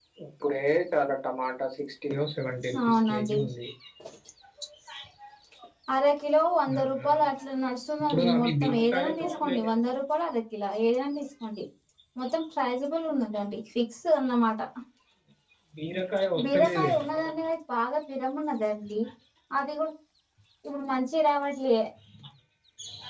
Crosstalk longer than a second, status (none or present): present